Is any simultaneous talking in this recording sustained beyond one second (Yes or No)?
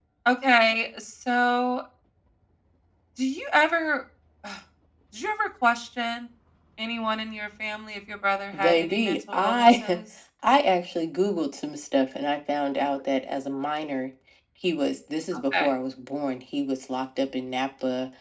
Yes